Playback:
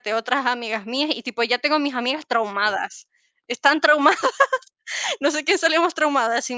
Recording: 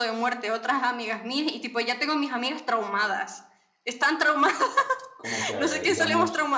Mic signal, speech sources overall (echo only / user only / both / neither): both